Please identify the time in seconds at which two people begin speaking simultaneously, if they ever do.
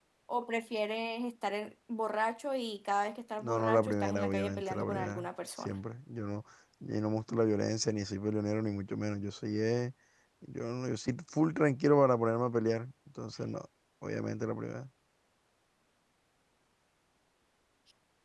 3.4 s

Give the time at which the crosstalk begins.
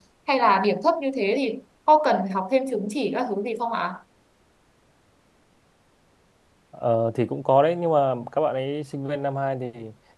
none

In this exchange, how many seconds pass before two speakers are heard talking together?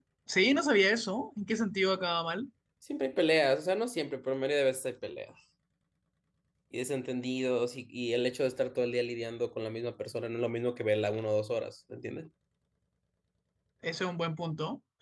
none

